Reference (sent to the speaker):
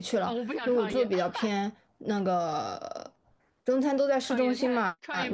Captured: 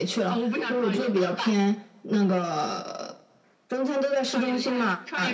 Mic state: echo only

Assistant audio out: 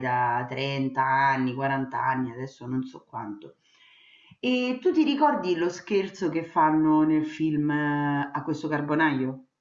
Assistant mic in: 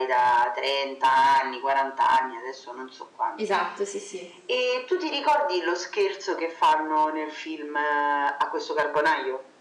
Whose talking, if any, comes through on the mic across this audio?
both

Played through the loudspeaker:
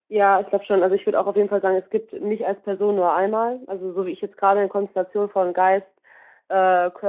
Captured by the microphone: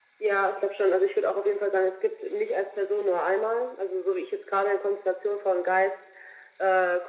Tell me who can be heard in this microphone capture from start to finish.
echo only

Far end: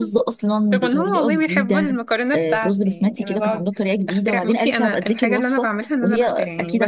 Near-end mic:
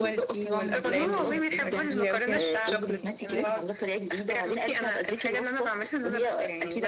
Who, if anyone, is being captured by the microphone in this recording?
both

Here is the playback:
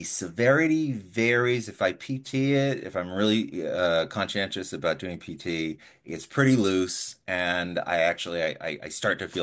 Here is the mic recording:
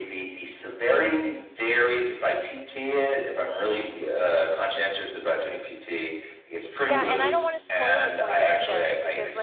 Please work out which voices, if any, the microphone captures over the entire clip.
both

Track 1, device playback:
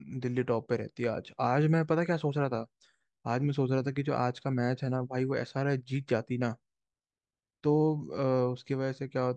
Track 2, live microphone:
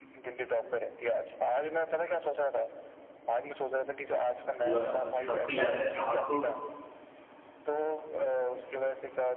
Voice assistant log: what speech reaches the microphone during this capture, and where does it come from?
both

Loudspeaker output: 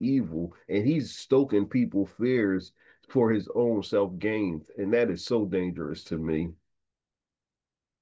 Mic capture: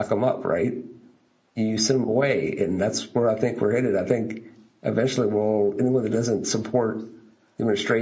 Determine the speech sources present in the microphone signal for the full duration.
user only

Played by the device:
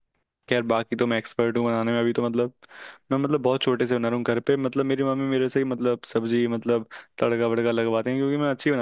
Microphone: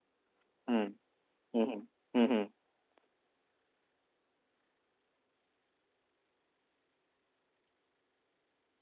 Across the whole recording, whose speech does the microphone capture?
user only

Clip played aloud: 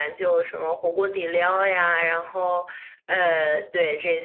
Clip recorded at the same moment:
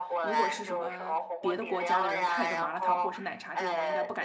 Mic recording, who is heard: both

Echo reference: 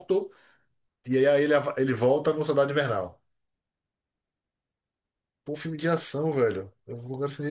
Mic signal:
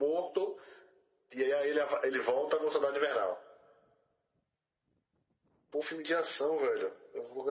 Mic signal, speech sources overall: echo only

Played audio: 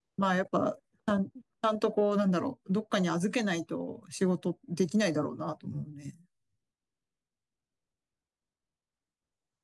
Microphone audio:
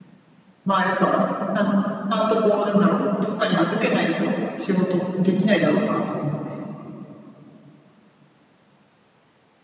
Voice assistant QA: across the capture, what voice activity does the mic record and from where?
echo only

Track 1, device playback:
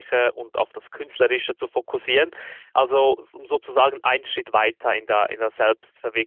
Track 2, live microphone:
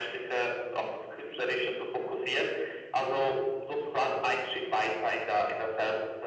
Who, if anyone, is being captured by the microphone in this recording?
echo only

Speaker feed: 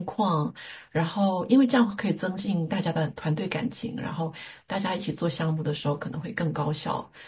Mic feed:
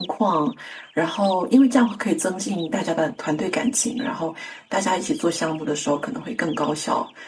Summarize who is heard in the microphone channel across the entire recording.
echo only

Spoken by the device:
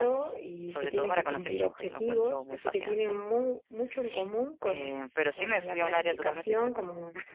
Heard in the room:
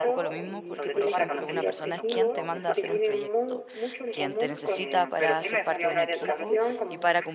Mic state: both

